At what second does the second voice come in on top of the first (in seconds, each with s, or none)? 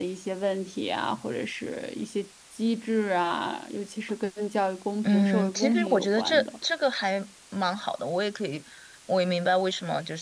5.0 s